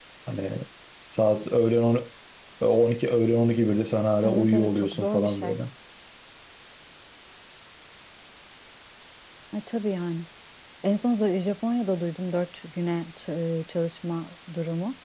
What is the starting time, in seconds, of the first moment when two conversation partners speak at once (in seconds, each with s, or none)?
4.2 s